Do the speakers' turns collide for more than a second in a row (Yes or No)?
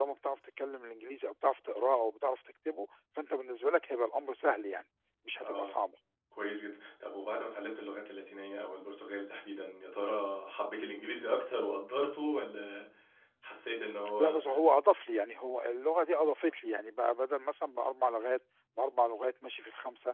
No